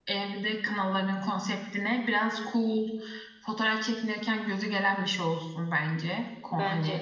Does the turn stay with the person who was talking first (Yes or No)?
Yes